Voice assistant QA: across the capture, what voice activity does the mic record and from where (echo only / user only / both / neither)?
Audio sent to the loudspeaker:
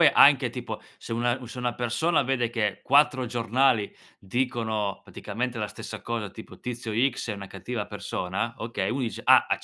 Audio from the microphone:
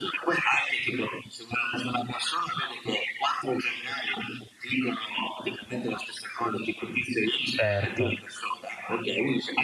both